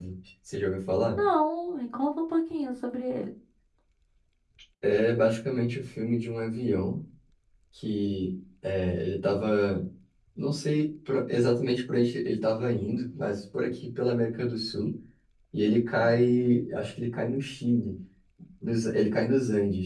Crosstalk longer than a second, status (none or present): none